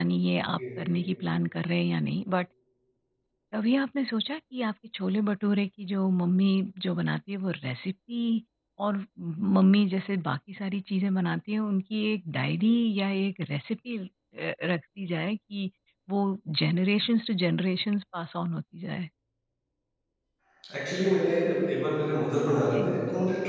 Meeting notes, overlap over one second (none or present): none